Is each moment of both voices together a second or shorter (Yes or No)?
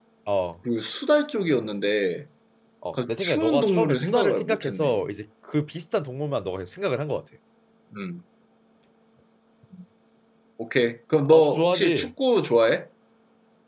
No